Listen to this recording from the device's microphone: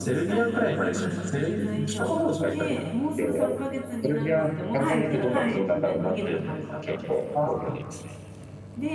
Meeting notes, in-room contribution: present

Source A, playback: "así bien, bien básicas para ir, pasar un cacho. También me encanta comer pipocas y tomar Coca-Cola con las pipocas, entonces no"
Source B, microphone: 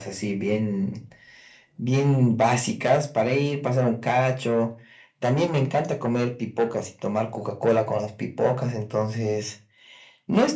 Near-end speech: none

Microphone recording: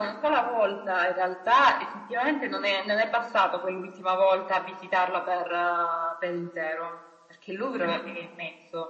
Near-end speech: none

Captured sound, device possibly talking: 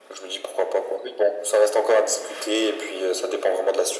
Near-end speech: none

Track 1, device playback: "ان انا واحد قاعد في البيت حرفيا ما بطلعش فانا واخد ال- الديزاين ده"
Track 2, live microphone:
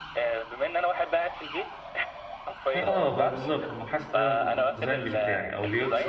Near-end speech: present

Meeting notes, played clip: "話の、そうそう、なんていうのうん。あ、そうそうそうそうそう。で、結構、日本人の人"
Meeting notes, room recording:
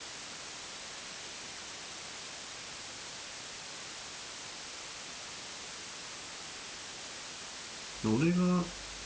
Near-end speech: present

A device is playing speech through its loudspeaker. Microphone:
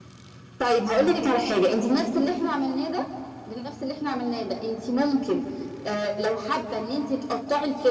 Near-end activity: none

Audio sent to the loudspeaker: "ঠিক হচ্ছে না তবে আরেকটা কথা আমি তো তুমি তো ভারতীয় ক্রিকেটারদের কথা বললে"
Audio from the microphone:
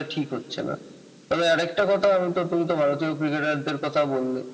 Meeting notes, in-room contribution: none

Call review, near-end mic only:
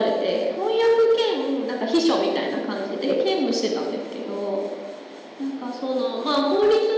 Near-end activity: none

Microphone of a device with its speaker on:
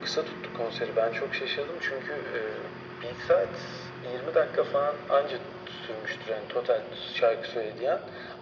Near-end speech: none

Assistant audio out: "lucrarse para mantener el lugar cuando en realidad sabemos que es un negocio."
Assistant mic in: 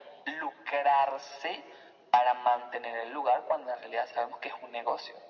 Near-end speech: none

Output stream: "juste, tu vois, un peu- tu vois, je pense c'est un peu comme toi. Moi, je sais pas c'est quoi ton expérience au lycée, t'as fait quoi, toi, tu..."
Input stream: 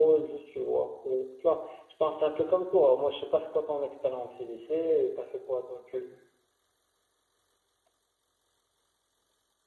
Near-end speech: none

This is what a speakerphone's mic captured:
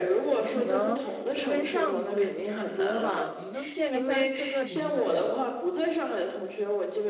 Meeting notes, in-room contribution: present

